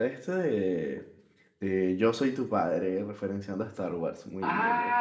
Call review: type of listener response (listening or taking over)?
taking over